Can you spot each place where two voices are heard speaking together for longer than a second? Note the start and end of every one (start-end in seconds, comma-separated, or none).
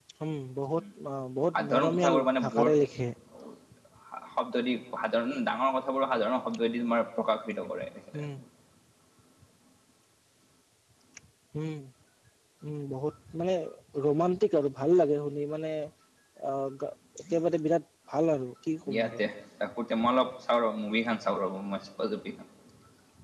1.6-2.8